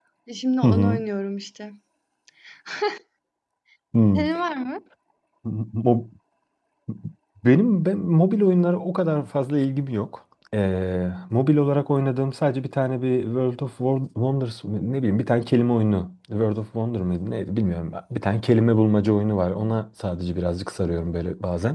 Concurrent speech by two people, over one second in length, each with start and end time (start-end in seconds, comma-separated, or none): none